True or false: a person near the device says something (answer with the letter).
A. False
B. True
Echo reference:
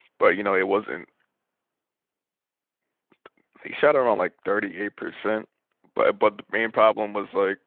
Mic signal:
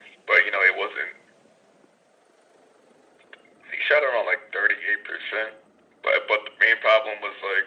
A